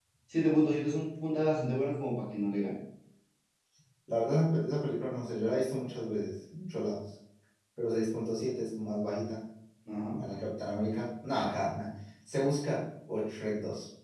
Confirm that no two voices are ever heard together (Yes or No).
Yes